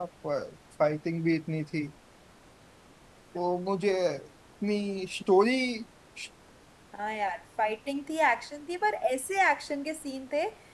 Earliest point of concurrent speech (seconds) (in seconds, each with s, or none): none